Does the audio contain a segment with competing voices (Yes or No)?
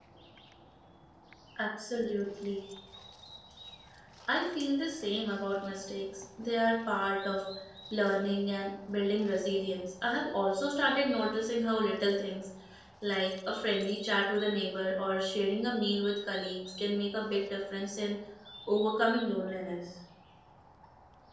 No